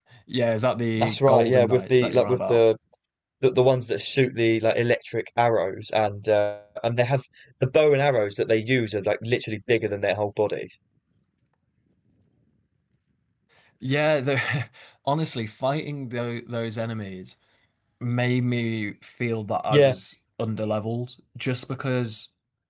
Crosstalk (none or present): present